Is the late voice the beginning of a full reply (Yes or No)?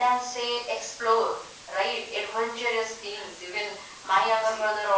No